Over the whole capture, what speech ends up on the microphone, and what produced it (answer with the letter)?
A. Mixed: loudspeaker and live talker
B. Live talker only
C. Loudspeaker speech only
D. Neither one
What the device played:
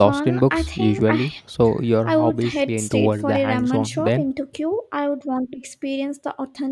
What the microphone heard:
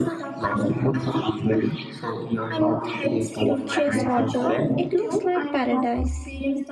A